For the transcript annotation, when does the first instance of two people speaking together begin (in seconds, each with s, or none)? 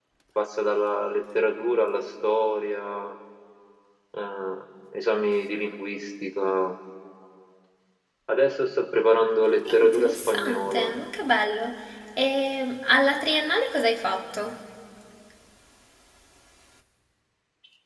9.7 s